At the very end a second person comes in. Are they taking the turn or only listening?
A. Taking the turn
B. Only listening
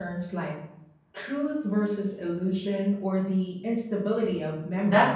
A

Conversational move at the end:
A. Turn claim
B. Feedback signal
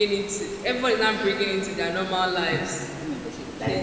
A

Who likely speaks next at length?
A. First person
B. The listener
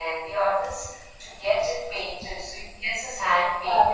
A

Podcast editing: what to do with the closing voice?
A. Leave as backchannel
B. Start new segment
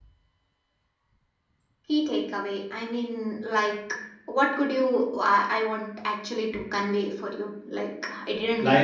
B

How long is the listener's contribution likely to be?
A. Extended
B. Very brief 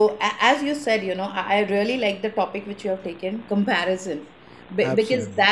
B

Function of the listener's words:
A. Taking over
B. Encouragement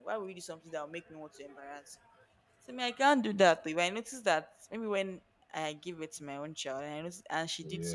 B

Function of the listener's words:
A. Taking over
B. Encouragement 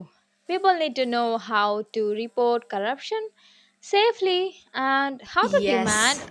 A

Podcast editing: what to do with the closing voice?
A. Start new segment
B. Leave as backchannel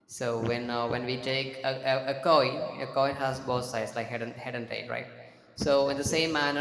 B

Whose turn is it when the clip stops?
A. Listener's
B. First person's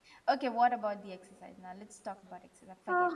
A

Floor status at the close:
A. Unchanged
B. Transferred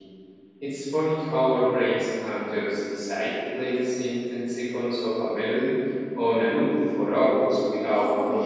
B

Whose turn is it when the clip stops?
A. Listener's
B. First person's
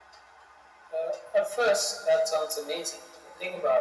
B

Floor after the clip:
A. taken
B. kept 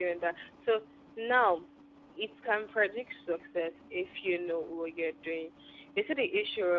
B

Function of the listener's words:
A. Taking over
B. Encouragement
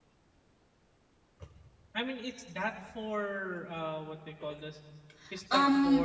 A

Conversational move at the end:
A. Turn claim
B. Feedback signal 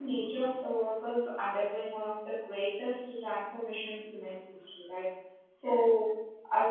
B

